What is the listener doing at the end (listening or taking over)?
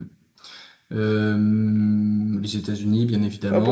taking over